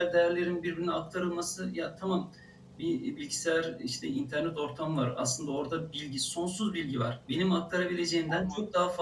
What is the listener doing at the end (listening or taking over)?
listening